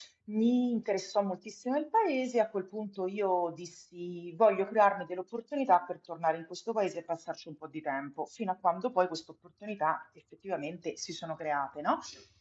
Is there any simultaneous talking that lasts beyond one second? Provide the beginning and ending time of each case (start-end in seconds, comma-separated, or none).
none